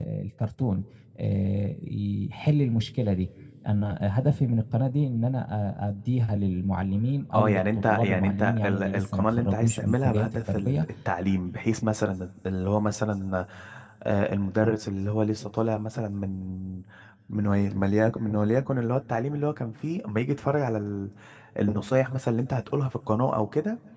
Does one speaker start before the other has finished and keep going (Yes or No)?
Yes